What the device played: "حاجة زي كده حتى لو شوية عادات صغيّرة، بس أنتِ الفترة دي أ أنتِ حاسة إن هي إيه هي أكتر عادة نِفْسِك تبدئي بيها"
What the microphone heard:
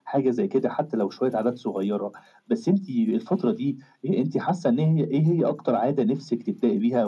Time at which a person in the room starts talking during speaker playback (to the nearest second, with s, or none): none